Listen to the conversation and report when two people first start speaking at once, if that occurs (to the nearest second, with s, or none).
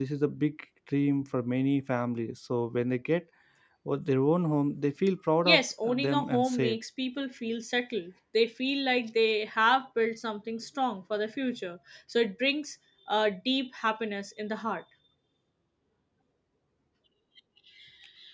5 s